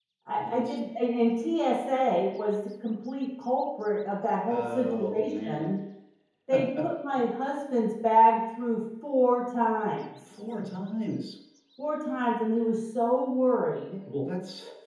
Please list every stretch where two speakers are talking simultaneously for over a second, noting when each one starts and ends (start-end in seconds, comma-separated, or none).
4.5-5.7